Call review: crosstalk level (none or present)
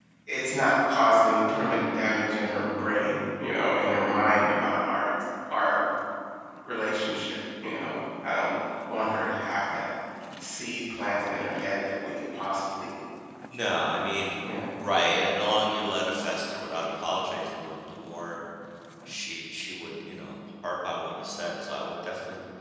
none